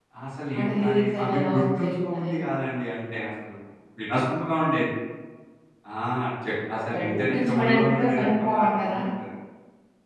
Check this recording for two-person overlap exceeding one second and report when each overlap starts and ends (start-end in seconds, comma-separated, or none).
0.6-2.4, 6.9-9.0